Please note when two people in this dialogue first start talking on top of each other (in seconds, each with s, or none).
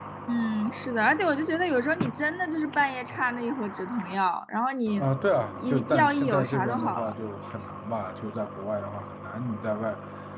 5.5 s